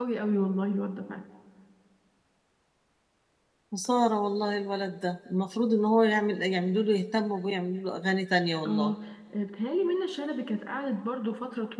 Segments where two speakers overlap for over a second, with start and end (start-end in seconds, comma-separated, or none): none